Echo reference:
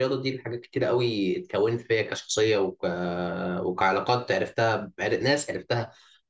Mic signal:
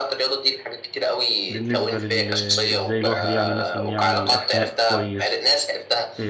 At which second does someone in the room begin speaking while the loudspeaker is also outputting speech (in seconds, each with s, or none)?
1.5 s